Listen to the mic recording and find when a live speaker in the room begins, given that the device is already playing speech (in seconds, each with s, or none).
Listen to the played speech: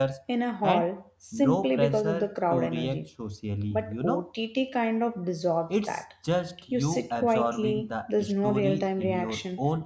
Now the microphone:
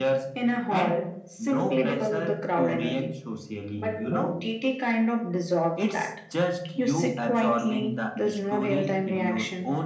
none